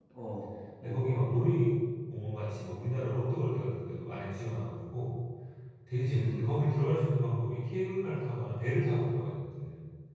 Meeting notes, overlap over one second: none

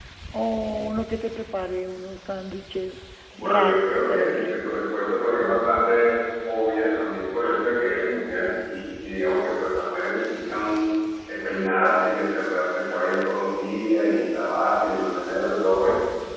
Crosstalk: present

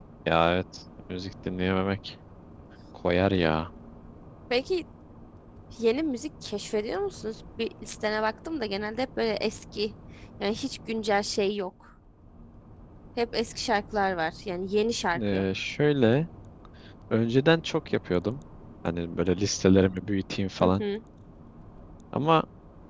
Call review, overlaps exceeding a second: none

